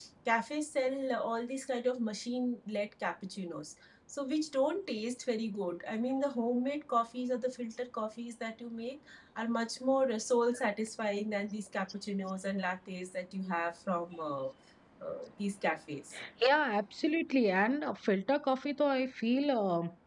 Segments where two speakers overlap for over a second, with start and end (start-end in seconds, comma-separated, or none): none